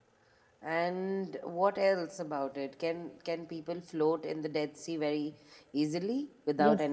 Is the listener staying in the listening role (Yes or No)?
No